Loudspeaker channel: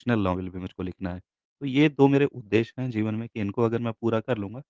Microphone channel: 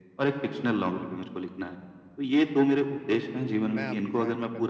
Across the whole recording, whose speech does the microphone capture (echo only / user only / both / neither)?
both